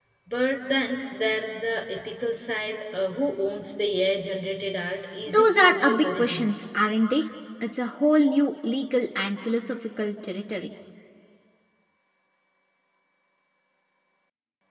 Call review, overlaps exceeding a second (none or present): present